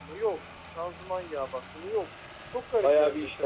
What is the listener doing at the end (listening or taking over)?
taking over